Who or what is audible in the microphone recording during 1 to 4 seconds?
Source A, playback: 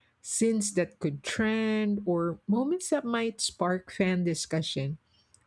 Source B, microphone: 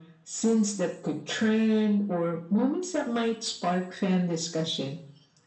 echo only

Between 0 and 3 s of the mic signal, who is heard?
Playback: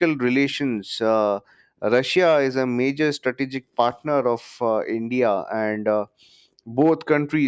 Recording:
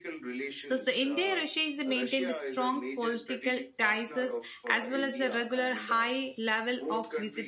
both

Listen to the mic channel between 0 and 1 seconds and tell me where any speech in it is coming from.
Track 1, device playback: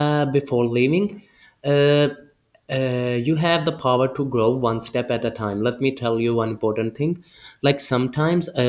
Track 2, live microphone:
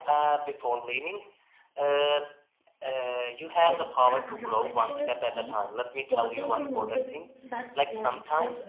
echo only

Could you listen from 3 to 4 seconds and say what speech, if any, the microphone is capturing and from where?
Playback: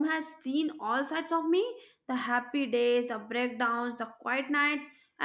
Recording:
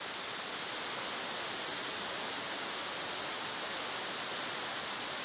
neither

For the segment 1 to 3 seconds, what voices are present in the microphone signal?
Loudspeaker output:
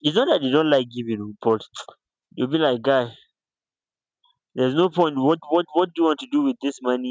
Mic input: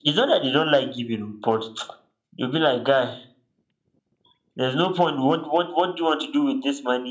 echo only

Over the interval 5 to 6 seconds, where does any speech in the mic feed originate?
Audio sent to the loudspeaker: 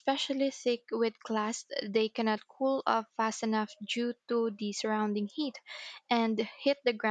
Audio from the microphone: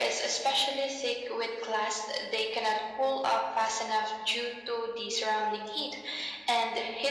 echo only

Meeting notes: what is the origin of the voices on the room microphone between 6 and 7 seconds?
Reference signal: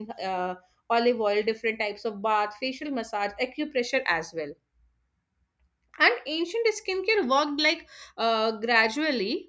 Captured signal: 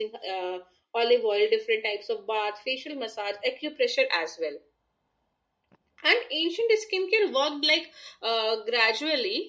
echo only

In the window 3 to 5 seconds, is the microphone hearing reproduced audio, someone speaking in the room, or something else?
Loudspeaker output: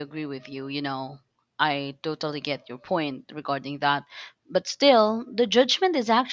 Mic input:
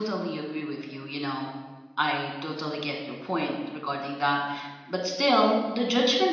echo only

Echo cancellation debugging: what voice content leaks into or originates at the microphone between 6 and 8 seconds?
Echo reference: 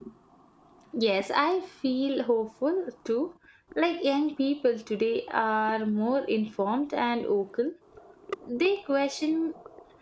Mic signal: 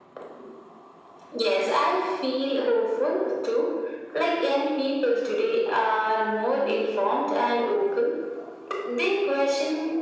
echo only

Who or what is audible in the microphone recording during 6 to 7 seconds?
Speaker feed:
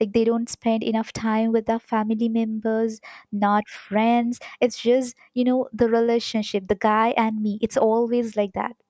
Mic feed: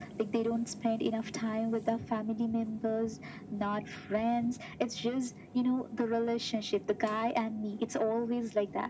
echo only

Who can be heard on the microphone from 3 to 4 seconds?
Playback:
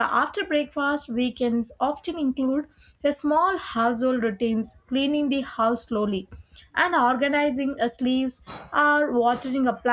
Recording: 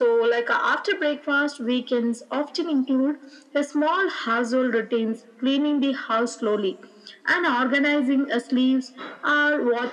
echo only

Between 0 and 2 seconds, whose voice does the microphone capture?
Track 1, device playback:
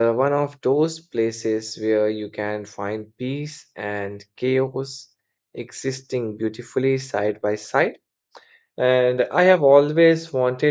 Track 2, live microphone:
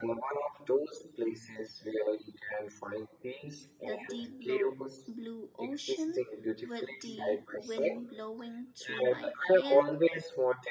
echo only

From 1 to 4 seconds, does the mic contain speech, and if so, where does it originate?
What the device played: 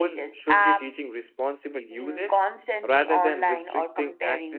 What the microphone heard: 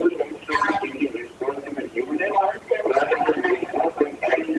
echo only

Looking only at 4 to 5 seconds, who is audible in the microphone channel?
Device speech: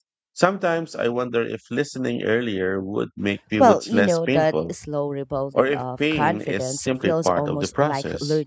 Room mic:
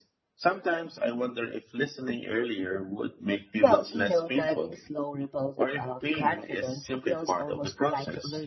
echo only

